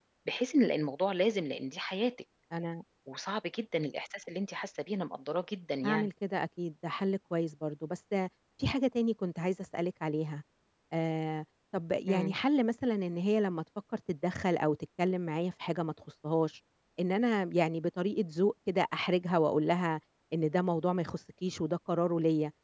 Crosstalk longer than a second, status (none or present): none